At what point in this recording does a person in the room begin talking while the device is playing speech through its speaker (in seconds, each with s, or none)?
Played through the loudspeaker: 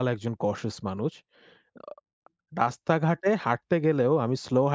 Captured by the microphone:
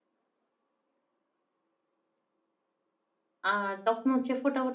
3.5 s